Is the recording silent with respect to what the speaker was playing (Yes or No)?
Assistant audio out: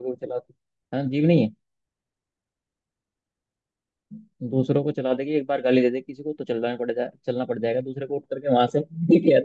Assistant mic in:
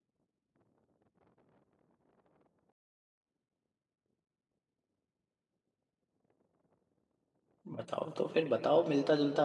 Yes